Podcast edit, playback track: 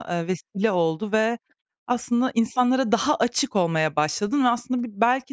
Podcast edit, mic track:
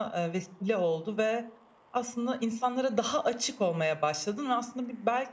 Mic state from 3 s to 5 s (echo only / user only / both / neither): echo only